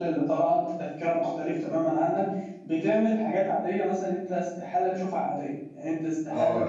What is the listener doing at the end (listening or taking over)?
taking over